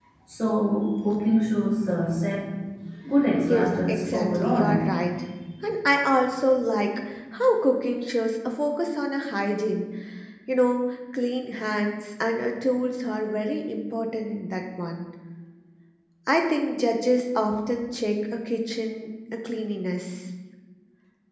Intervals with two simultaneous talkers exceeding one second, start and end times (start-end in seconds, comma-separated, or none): 3.5-4.8